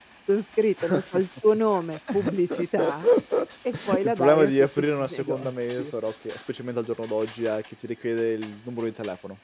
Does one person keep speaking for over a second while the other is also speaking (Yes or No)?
Yes